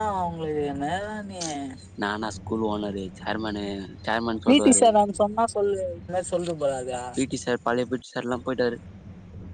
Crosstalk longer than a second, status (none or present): none